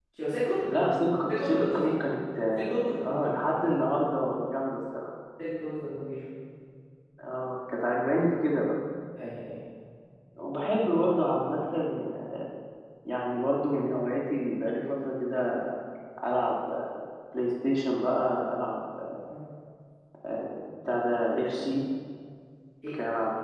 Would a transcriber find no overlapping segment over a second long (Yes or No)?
No